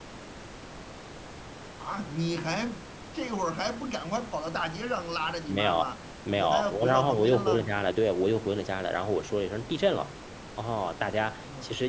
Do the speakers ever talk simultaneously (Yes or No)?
Yes